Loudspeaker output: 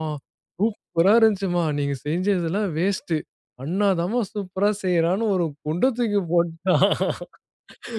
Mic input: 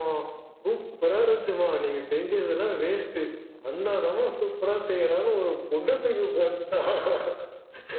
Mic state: echo only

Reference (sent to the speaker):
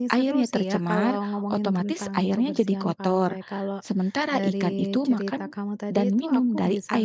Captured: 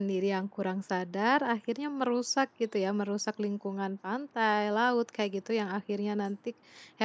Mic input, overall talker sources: user only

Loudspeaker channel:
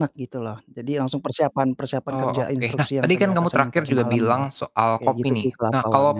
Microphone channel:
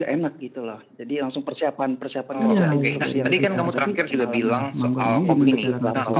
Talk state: both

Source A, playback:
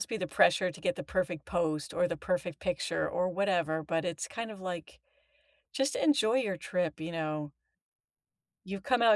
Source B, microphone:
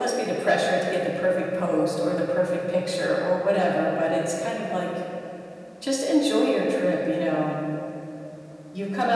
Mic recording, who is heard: echo only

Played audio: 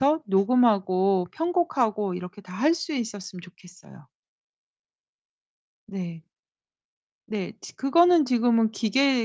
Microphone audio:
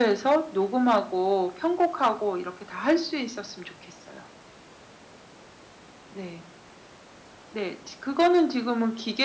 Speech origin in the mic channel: echo only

